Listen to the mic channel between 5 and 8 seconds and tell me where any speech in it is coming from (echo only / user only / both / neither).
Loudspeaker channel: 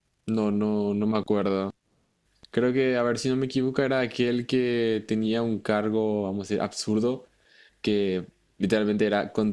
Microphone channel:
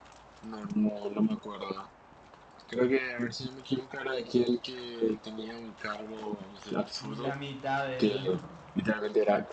both